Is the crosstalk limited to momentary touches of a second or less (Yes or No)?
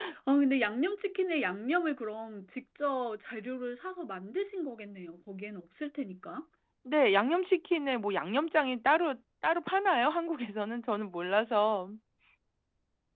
Yes